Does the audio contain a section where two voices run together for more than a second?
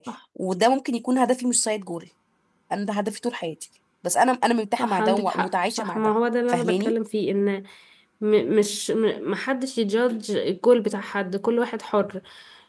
Yes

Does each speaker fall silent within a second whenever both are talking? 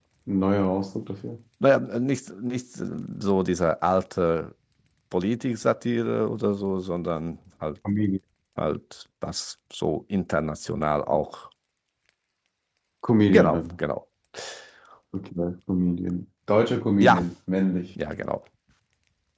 Yes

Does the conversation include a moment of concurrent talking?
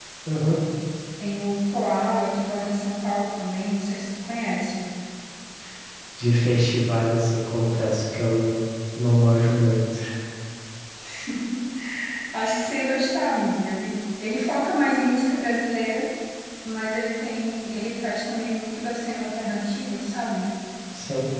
No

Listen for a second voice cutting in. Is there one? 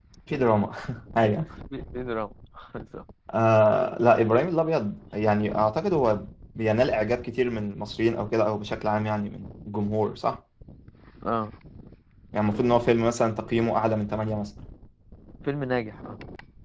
No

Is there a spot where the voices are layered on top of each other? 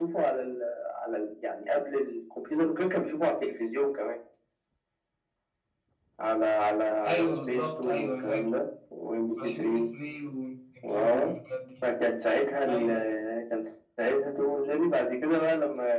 Yes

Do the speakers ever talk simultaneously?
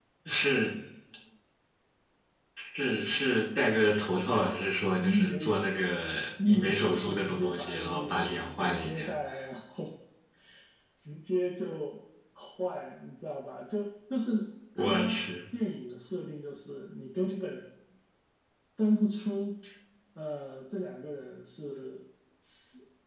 Yes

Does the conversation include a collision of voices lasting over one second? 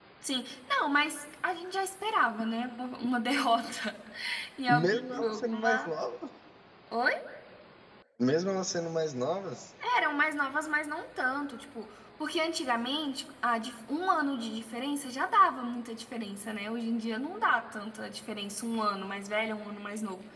Yes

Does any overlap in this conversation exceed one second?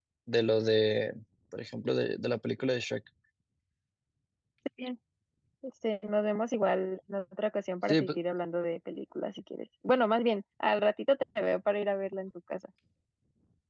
No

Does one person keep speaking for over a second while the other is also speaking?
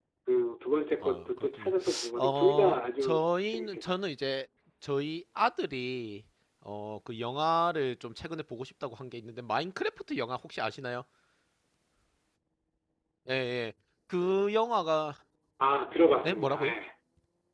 Yes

